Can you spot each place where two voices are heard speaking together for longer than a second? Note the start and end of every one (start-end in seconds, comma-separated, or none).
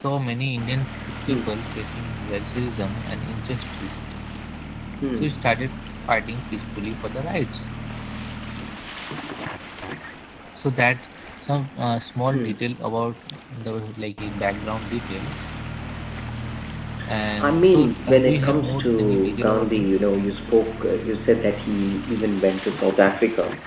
17.4-19.9